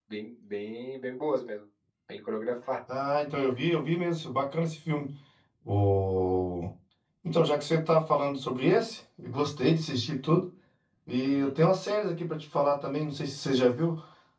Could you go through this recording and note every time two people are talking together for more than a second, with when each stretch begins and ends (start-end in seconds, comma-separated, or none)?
none